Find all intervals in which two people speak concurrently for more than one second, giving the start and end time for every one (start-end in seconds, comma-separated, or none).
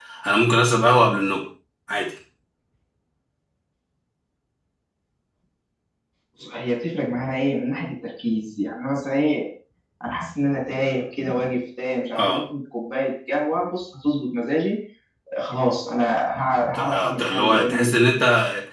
16.7-18.2